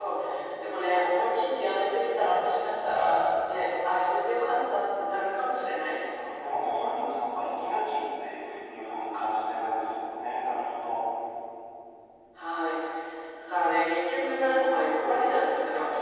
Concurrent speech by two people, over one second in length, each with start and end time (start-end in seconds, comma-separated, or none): none